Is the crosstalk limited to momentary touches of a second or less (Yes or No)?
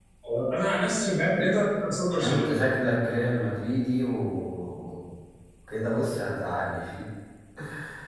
Yes